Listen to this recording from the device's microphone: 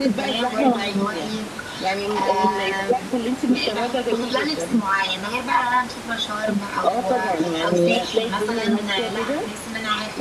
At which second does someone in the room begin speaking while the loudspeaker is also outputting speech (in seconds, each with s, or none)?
none